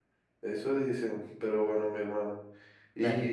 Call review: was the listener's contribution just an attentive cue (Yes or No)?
Yes